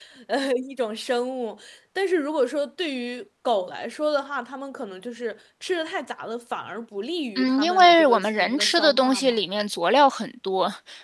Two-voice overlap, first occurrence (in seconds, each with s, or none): 7.4 s